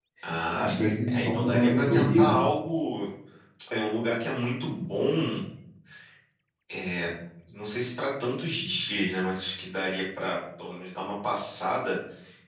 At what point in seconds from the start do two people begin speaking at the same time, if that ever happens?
0.6 s

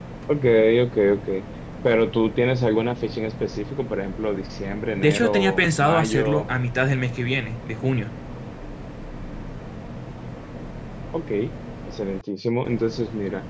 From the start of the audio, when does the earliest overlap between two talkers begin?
5.0 s

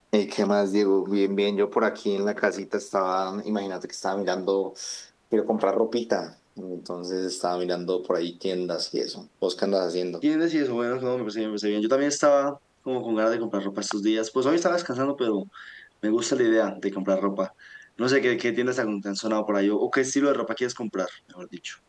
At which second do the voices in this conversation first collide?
none

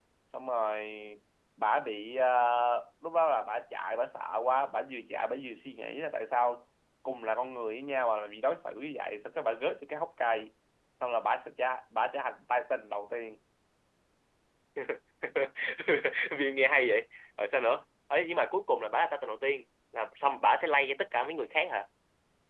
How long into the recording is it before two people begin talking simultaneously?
none

